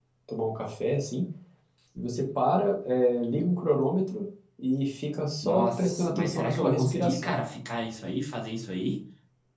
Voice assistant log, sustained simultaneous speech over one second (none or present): present